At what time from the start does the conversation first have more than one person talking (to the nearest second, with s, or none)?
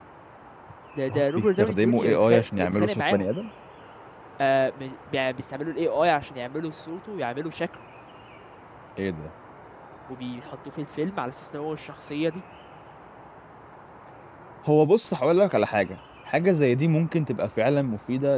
1 s